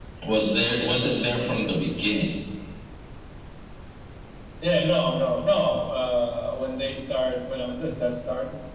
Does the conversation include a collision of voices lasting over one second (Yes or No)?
No